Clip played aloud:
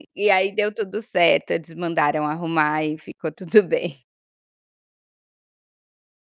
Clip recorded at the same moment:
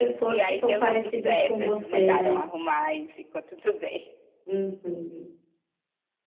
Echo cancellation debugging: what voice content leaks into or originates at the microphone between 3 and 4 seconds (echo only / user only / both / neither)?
echo only